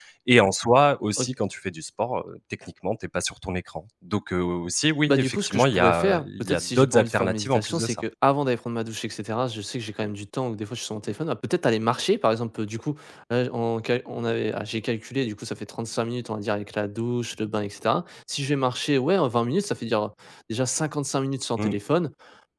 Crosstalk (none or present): present